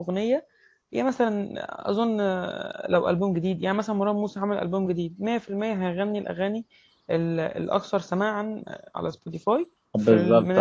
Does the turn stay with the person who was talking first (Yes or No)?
No